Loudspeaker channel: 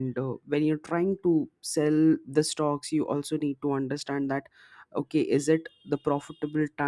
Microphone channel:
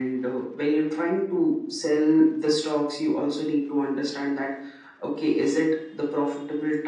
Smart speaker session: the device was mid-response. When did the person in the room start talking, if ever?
none

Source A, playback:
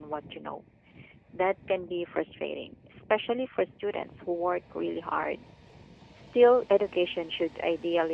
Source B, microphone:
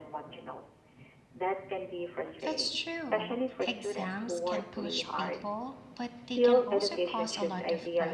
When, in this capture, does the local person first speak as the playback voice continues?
2 s

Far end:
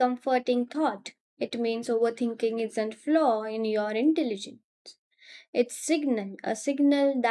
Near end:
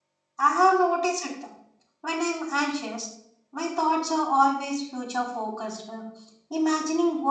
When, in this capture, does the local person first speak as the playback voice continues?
0 s

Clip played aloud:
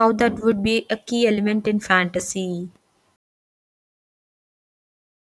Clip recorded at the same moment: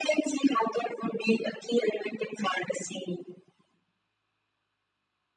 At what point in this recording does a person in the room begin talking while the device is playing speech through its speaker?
none

